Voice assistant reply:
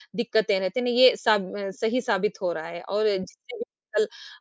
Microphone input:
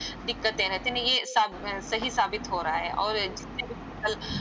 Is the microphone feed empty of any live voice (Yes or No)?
Yes